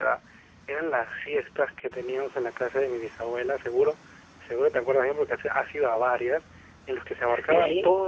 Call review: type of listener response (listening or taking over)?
listening